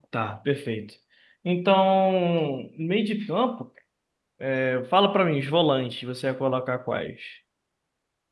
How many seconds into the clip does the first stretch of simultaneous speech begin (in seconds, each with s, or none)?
none